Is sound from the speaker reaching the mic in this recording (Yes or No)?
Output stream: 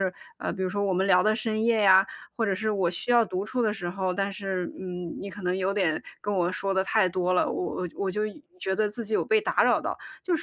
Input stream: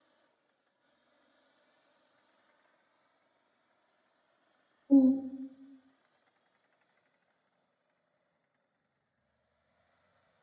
No